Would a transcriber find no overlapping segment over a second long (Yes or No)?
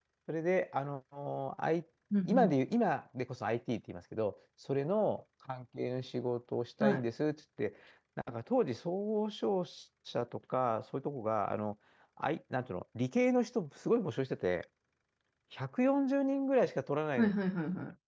Yes